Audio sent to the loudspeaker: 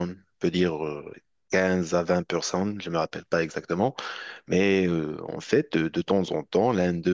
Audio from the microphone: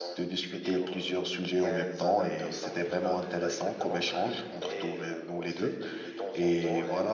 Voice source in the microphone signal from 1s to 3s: both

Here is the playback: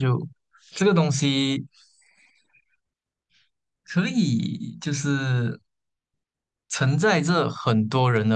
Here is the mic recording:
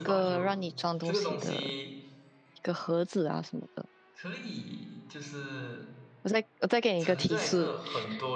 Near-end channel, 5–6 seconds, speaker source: echo only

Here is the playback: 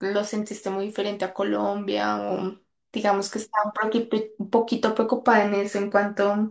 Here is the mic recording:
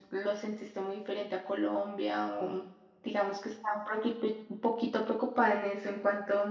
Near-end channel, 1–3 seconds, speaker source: echo only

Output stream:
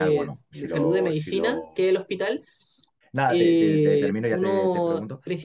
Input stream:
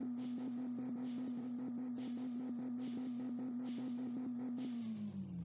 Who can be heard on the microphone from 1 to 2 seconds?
neither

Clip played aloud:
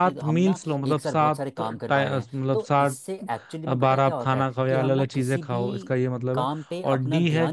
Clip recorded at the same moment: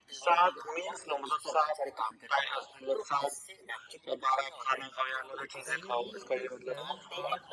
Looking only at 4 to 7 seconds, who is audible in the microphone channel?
both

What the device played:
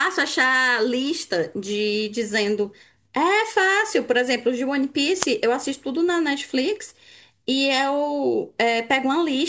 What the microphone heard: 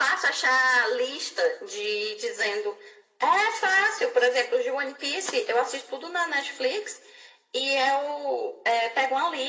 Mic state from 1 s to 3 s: echo only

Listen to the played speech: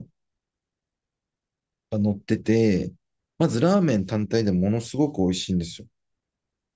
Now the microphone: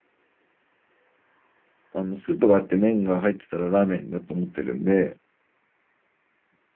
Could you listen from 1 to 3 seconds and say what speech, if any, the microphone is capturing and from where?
user only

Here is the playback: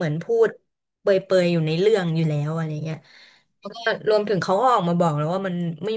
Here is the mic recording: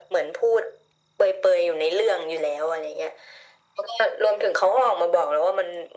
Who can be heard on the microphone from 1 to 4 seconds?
echo only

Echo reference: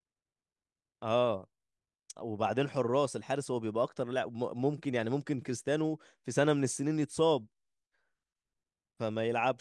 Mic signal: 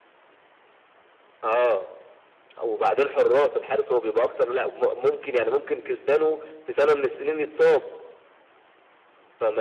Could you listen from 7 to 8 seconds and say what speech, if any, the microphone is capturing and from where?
echo only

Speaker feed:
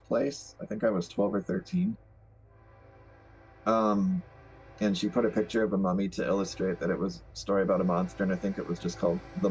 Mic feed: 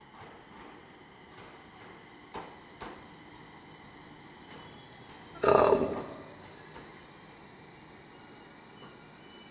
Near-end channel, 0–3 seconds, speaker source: neither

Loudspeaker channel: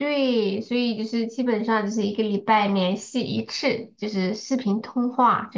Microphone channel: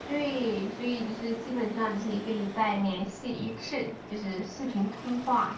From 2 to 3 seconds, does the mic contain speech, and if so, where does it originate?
echo only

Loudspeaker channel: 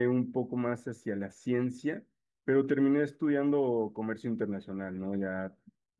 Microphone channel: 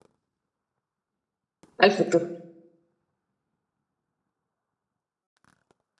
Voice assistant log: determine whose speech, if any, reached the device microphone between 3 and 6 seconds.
neither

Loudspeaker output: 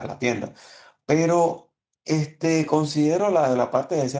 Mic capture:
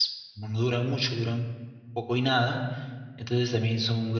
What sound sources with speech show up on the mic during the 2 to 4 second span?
user only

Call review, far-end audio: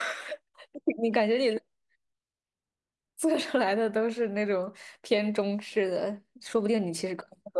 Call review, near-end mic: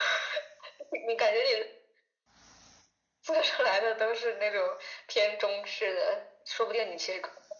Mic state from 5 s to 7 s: echo only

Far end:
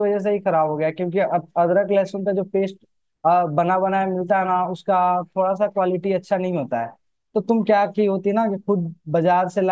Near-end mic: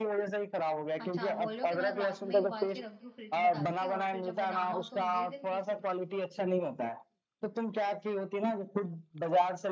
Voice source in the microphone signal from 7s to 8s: echo only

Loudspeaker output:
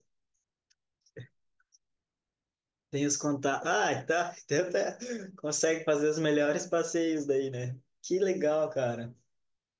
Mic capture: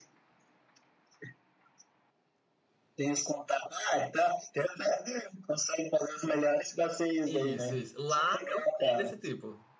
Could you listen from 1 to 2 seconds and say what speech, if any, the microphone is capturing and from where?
neither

